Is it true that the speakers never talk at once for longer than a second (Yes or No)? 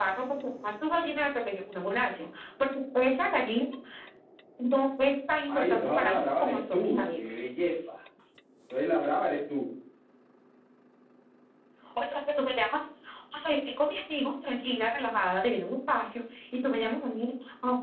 No